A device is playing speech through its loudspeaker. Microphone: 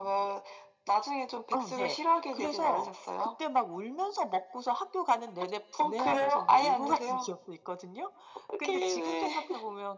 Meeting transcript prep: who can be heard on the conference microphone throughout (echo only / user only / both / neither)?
echo only